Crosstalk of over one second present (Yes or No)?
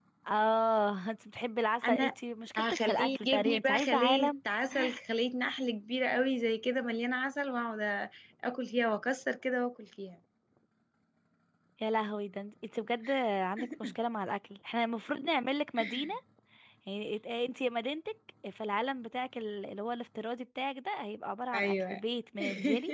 Yes